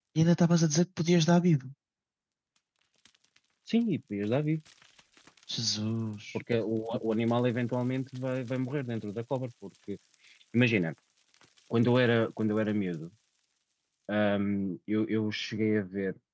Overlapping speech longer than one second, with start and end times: none

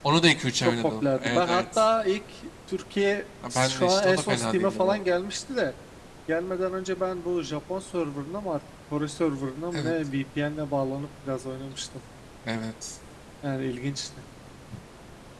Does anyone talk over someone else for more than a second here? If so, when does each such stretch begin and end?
0.6-1.9, 3.5-5.0

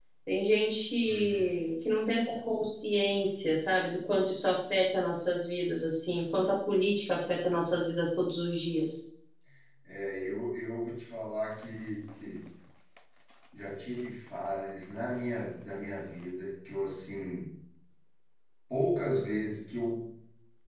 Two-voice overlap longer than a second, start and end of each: none

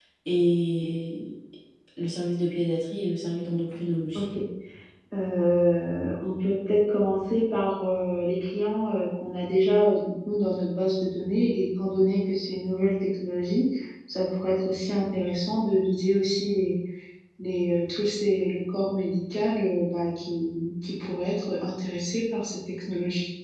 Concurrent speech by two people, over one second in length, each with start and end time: none

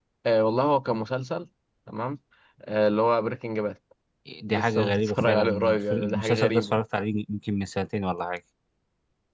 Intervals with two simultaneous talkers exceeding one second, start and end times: 4.5-6.7

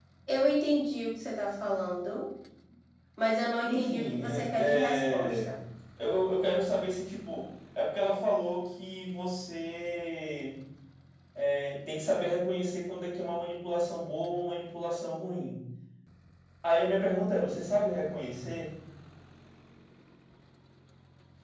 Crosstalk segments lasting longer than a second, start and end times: 3.6-5.6

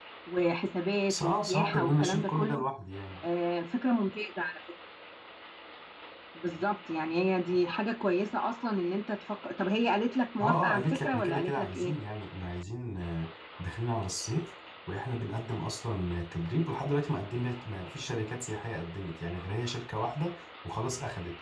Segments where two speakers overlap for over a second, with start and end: 1.1-2.6, 10.4-11.9

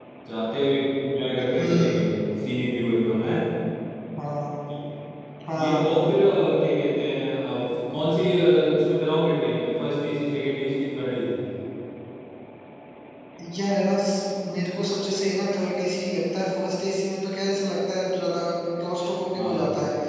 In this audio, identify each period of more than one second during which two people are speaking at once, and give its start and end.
none

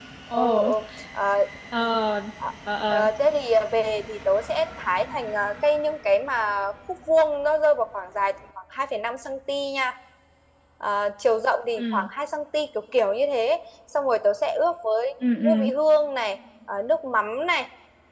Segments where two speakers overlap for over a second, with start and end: none

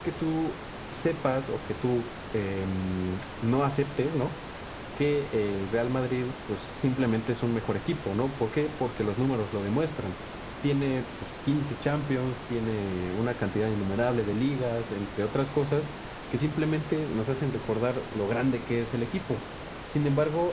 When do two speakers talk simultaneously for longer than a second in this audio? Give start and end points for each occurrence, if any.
none

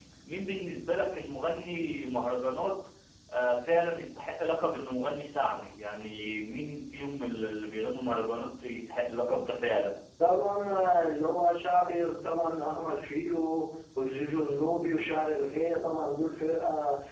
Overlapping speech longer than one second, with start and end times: none

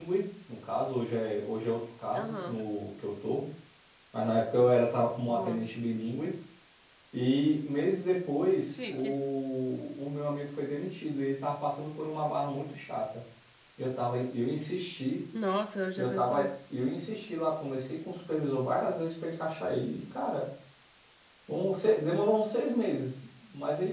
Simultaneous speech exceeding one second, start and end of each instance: none

